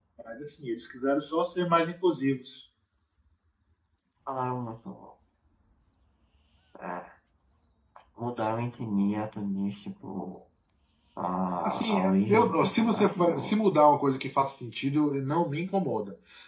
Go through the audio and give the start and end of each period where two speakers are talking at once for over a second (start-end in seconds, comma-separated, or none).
11.6-13.5